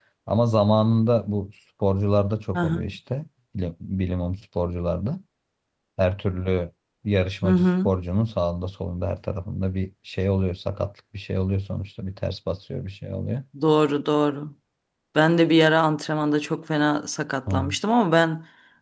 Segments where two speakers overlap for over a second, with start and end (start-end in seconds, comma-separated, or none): none